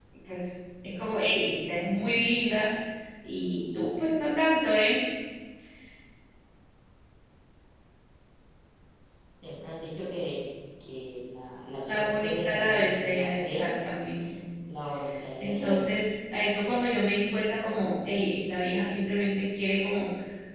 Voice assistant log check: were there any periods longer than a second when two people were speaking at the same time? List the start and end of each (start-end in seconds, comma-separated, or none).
11.9-13.7